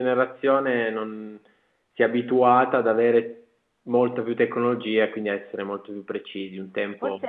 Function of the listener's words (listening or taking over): taking over